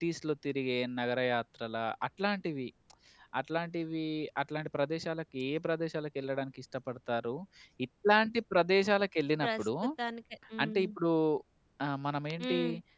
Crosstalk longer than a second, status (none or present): none